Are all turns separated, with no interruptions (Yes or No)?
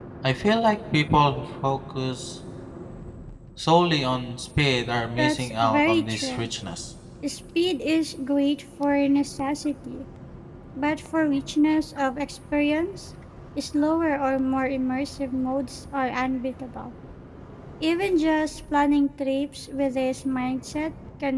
No